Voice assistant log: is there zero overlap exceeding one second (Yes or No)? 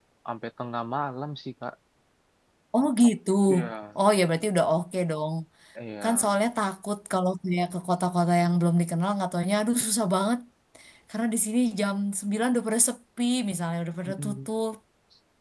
Yes